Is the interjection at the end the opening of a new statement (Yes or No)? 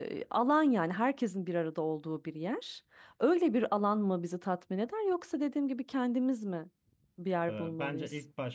Yes